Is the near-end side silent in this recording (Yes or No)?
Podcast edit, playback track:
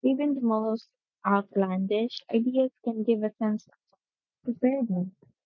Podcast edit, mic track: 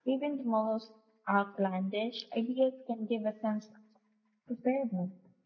Yes